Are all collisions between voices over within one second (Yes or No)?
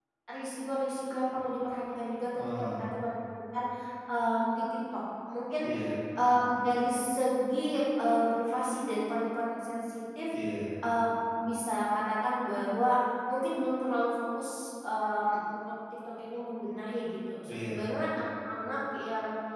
Yes